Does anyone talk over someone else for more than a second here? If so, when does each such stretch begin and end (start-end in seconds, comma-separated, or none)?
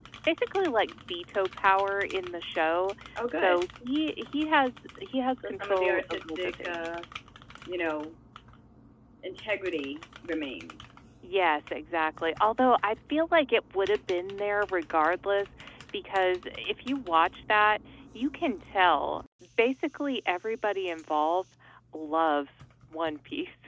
5.4-6.9